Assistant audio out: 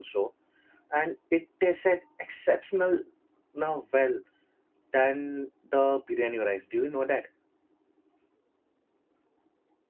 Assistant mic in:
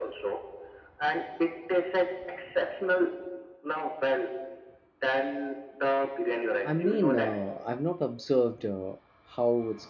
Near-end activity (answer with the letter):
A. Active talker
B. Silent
A